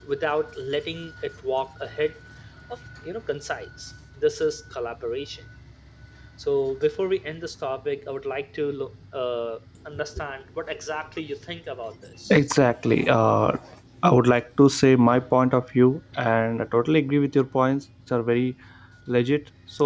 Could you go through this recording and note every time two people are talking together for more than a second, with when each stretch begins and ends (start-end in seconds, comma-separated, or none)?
none